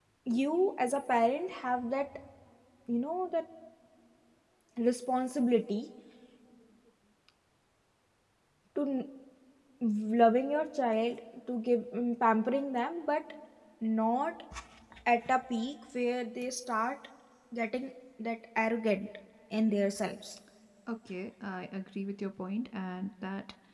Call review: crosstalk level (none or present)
none